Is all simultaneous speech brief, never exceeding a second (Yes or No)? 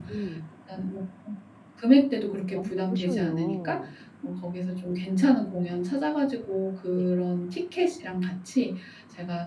No